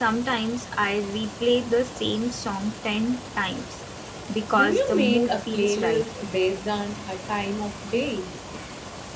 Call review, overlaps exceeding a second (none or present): present